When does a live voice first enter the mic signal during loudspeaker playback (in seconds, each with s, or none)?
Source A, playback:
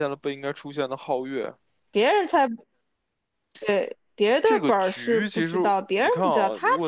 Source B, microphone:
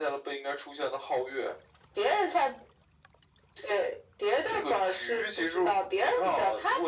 none